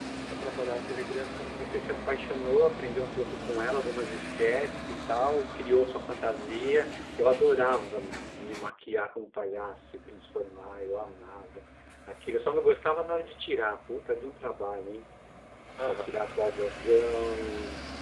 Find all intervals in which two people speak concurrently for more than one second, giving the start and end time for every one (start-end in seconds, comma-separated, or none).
none